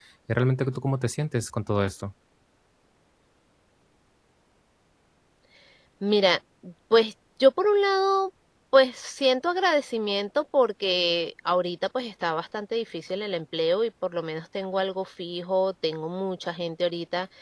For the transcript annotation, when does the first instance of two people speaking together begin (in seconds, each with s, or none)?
none